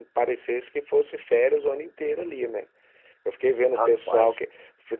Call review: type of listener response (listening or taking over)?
listening